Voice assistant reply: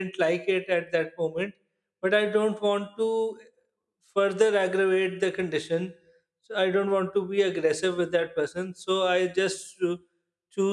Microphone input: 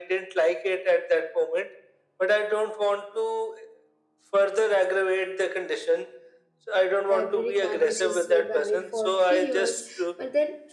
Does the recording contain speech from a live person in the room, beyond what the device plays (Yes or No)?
Yes